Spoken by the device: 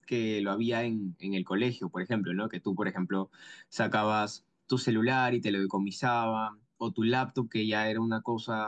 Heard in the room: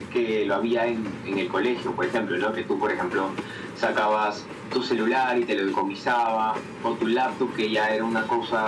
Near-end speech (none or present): none